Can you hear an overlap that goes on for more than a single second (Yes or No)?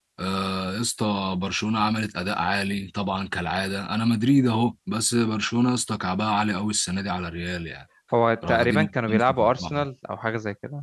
Yes